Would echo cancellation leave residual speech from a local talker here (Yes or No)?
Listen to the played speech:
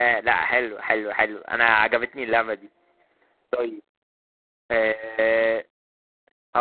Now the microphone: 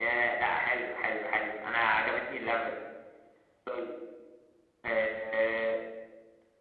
No